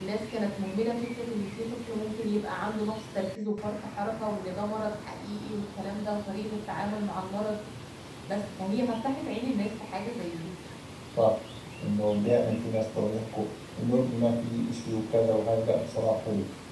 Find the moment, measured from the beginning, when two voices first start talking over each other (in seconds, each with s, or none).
none